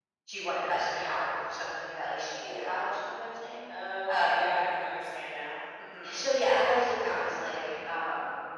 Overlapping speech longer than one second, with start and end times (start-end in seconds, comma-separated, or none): none